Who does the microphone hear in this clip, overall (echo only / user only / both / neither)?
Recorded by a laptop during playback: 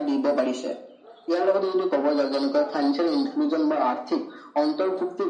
echo only